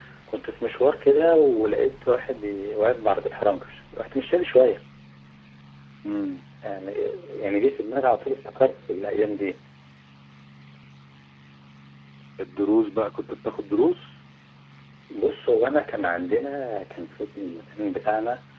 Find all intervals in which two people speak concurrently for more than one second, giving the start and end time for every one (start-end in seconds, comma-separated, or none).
none